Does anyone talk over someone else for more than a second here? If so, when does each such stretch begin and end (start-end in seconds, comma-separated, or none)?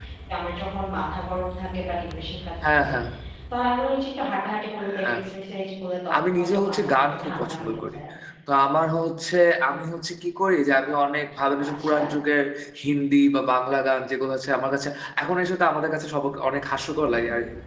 6.3-8.0